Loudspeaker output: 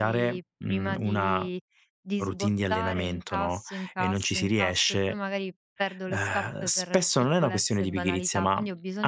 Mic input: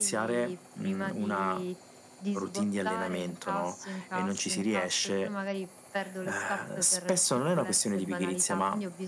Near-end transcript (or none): none